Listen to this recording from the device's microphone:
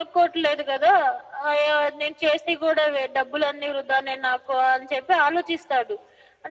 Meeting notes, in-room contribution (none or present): none